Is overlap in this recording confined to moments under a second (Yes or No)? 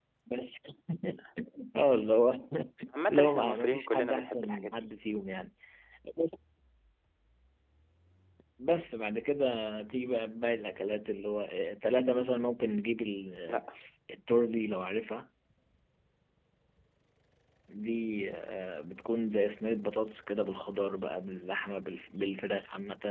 No